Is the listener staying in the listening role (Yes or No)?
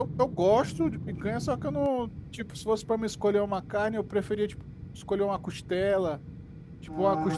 Yes